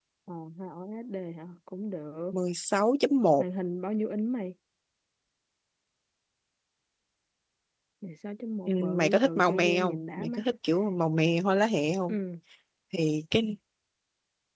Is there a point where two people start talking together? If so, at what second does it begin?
8.7 s

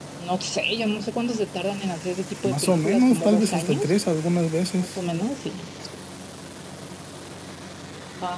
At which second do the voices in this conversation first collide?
2.4 s

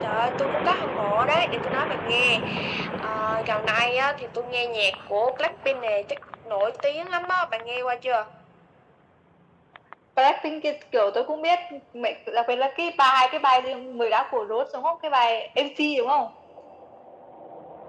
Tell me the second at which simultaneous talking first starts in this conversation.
none

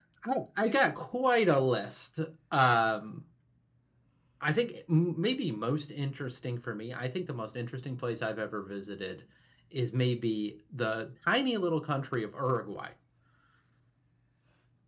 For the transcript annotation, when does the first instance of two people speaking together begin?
none

